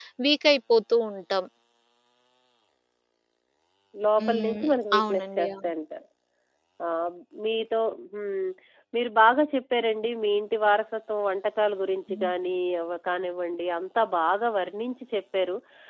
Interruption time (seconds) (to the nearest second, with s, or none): 4 s